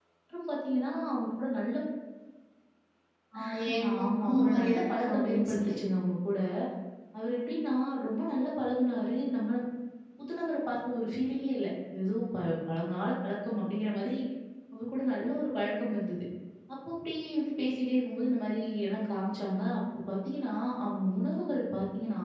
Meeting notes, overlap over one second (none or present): present